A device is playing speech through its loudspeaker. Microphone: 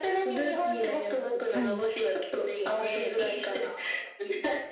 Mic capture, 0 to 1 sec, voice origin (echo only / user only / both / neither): echo only